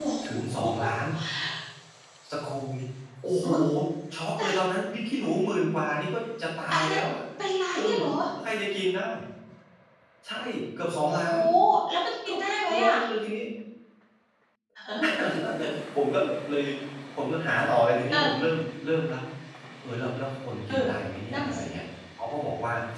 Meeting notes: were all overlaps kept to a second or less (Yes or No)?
Yes